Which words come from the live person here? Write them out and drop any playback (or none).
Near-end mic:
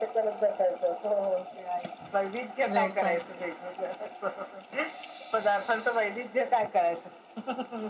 व्यवसाय